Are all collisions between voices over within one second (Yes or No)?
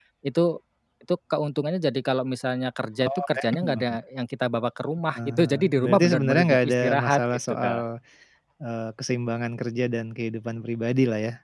No